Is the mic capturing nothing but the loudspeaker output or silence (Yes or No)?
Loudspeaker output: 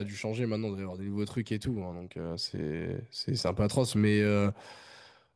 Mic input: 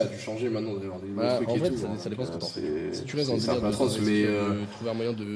No